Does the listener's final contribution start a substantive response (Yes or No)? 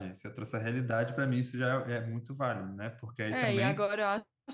Yes